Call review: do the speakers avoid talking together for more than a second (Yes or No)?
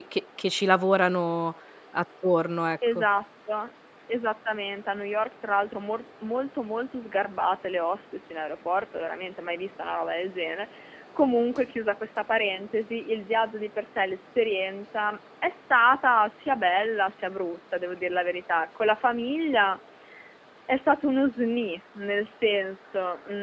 Yes